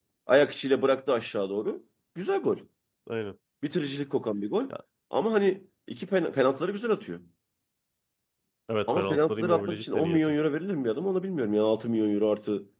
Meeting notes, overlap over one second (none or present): present